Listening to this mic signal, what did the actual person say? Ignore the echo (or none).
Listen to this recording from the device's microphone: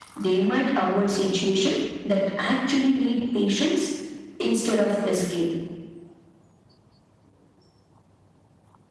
none